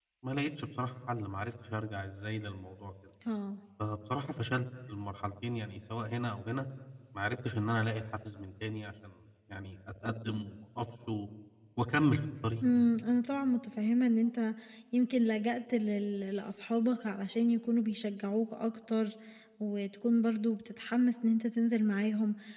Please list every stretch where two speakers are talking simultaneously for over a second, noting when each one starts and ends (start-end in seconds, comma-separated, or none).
none